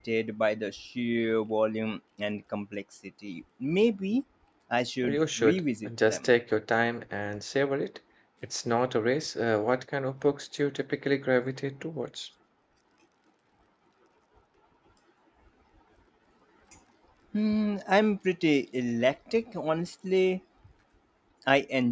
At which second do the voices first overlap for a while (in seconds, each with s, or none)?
5.1 s